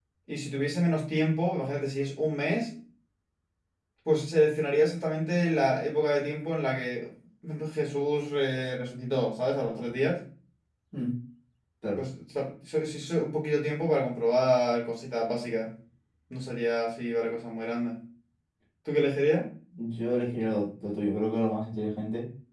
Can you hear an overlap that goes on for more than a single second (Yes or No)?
No